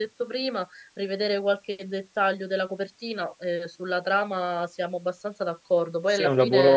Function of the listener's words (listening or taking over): taking over